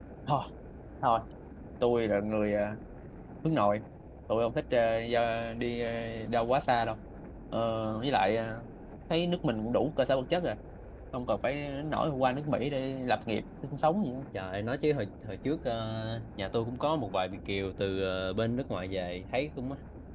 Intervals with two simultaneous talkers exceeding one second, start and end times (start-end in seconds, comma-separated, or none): none